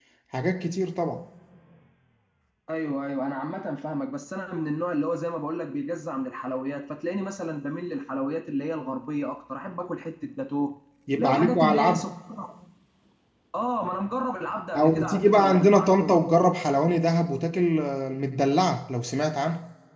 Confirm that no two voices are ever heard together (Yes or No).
No